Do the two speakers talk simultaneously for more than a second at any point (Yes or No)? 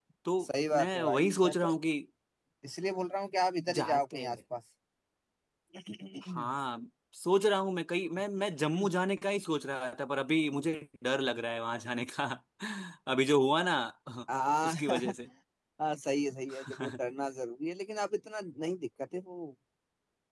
Yes